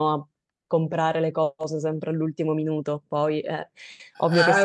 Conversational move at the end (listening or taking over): taking over